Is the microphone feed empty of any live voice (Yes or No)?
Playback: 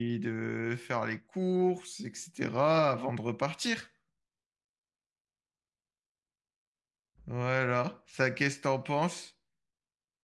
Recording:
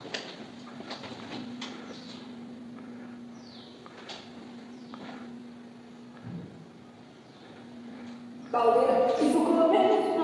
No